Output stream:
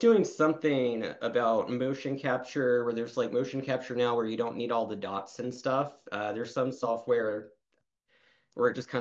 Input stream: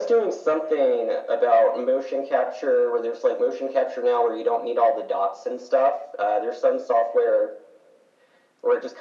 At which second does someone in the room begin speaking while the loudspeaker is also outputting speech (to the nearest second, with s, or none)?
none